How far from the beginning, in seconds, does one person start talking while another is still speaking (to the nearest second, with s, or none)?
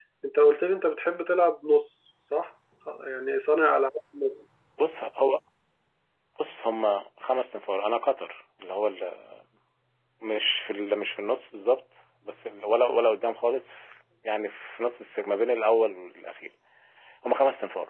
none